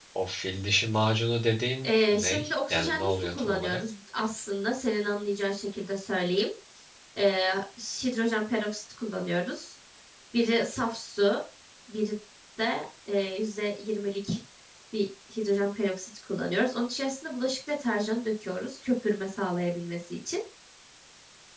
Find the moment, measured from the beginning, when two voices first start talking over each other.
1.8 s

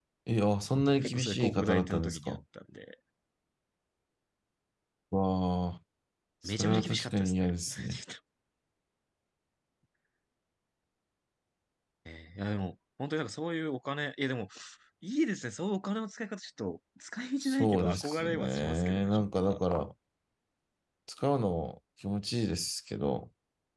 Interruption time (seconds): 1.1 s

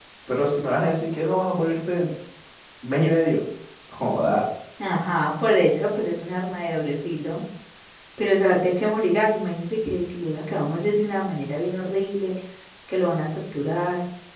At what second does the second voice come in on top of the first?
none

